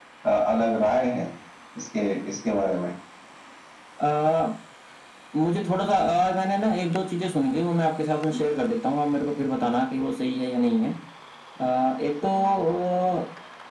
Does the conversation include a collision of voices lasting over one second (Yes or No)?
No